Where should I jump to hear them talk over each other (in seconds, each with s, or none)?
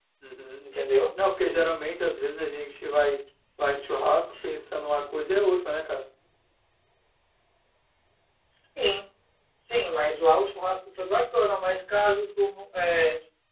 none